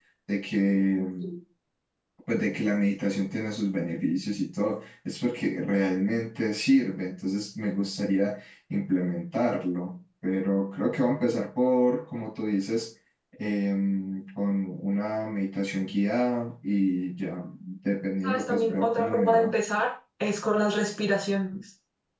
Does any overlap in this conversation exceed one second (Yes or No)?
Yes